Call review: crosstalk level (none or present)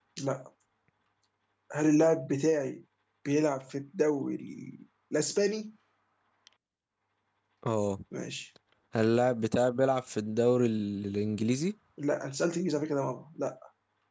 none